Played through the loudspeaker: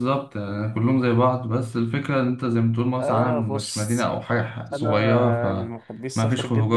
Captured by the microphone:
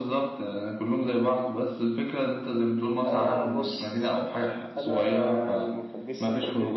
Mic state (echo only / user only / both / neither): echo only